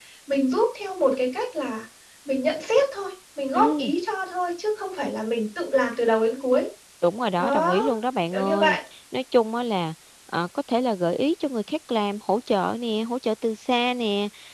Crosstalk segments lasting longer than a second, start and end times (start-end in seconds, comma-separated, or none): none